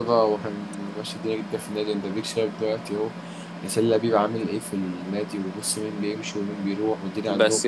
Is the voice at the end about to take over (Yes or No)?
Yes